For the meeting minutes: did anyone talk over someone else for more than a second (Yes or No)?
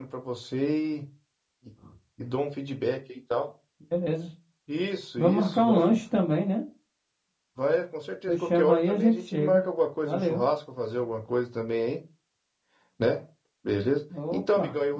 Yes